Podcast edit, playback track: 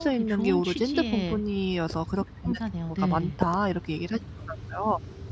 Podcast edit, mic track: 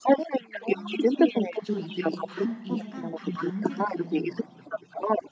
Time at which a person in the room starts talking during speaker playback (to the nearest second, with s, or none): 1 s